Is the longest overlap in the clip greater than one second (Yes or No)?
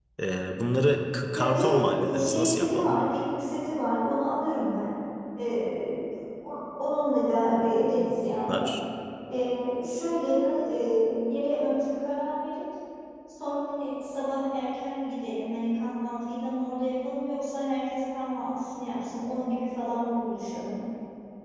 Yes